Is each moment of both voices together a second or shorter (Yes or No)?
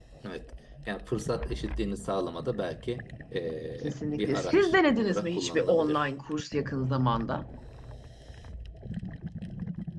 No